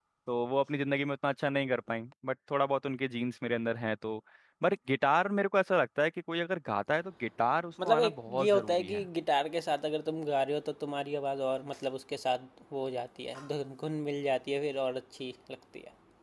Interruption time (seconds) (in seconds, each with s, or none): 7.8 s